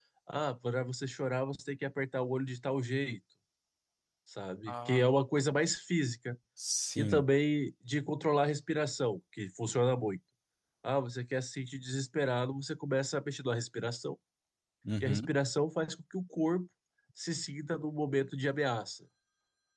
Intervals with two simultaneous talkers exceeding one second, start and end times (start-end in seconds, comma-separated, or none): none